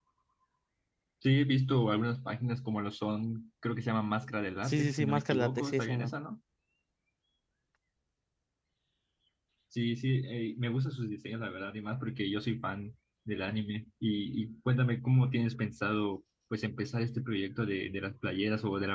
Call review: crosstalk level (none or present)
present